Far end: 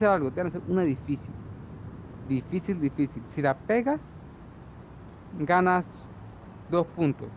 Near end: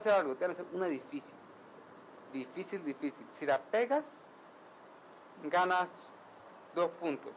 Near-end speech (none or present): none